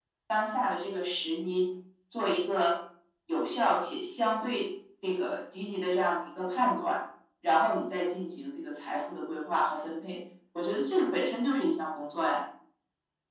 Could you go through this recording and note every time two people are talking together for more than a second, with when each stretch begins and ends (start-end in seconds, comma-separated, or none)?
none